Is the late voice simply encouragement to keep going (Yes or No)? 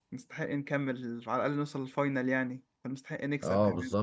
No